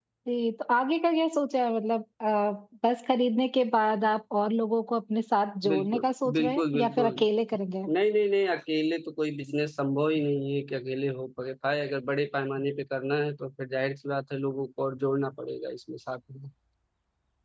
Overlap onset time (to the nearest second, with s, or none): 6 s